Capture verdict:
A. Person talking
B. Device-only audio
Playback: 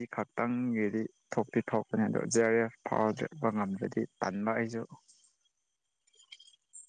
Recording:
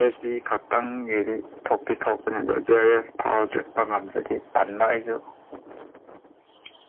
B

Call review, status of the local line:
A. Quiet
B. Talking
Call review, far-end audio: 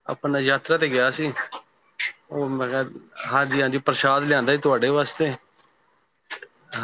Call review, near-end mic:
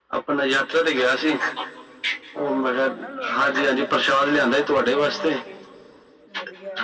B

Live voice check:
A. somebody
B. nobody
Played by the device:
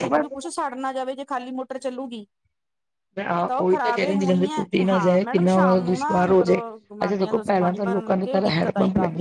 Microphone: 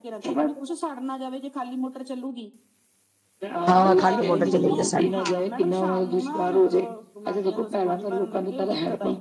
A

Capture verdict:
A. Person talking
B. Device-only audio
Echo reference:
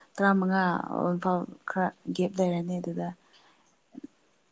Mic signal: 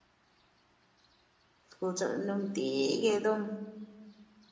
A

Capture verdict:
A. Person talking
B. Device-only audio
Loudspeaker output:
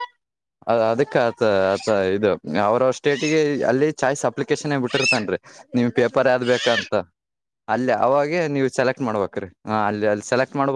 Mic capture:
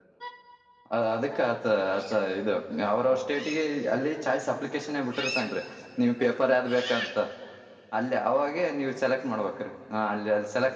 B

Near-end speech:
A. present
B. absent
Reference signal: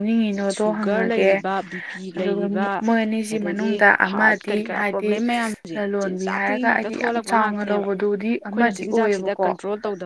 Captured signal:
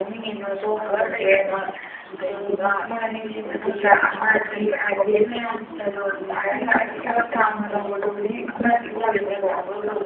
B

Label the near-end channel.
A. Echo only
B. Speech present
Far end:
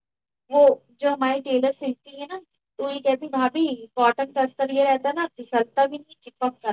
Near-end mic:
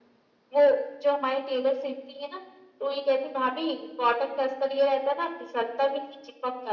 A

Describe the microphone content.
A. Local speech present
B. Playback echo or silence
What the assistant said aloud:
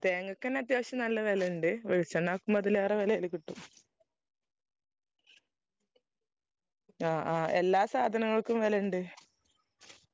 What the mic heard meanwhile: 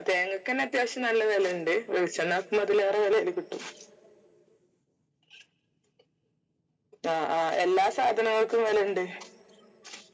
B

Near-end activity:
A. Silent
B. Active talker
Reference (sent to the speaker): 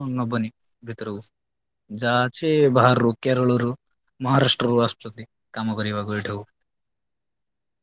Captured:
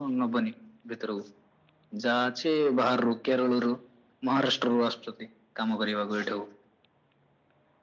A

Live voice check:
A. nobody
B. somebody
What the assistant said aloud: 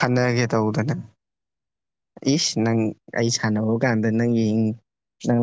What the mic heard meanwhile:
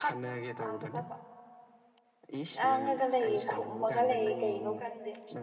B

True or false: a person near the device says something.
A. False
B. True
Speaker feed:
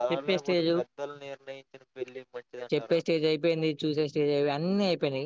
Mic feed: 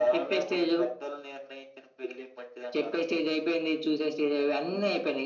A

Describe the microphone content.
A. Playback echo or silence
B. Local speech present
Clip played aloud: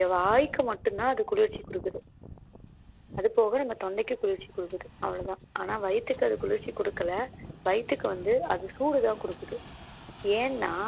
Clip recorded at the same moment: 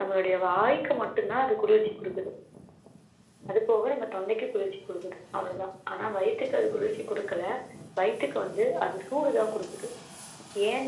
A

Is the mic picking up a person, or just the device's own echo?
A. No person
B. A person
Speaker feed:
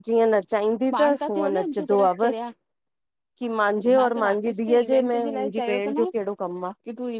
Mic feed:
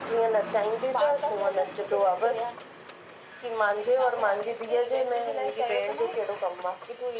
A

